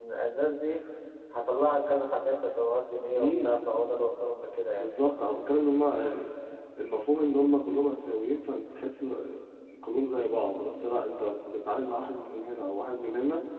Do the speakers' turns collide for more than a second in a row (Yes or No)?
No